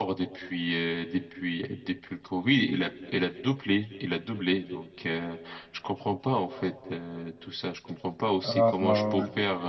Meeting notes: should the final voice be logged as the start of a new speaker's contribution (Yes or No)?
No